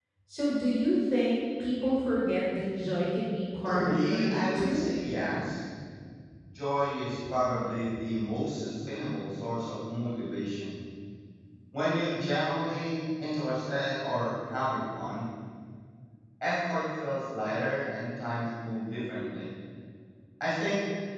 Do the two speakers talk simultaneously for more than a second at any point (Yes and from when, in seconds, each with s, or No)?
Yes, from 3.6 s